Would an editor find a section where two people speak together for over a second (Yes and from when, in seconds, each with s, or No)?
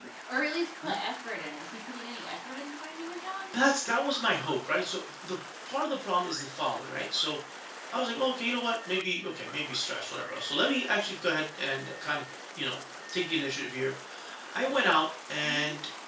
No